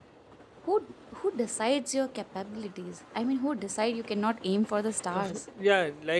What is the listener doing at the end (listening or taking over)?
taking over